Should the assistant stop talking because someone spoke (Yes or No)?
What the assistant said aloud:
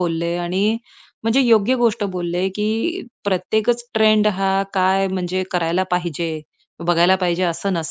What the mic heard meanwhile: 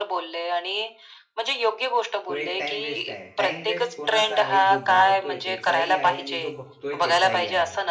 Yes